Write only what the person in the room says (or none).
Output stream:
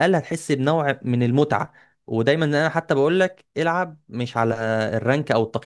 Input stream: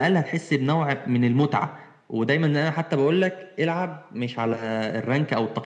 none